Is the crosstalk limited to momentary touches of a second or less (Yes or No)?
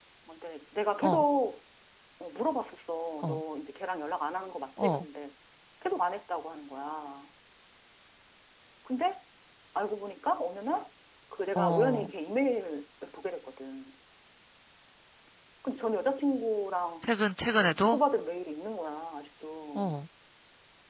Yes